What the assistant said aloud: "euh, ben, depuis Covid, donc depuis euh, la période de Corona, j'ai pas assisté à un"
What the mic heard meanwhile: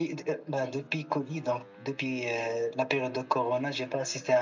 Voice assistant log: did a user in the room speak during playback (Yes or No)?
No